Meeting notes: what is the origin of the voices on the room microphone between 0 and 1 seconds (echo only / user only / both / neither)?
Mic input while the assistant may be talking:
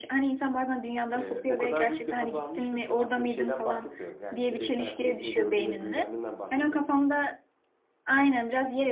echo only